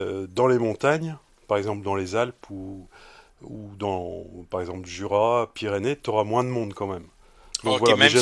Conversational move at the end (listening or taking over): taking over